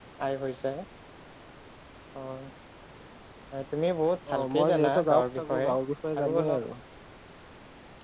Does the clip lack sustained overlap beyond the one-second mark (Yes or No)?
No